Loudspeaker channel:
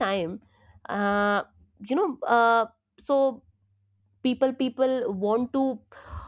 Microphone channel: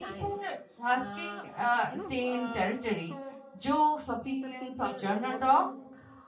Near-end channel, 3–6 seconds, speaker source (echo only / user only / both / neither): both